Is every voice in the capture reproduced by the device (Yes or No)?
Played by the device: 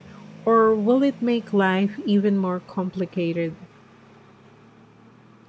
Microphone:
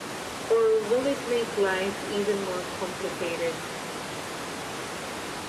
Yes